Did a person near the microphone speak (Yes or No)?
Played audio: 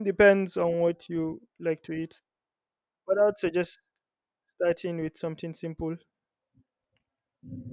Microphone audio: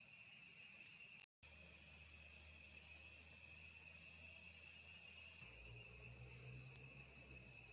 No